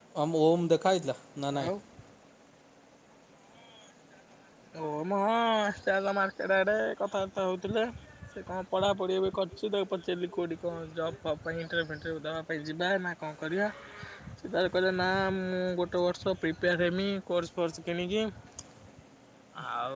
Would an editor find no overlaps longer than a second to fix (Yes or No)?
Yes